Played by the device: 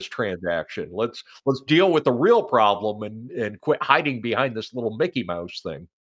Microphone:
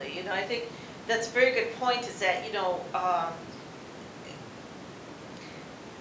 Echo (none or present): none